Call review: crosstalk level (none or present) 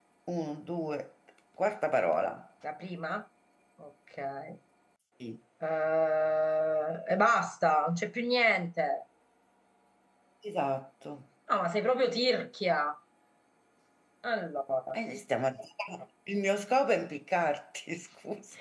none